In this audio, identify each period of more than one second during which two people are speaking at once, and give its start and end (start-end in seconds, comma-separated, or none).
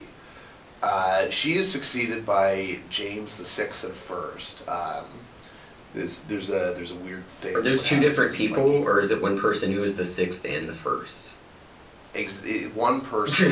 7.5-8.8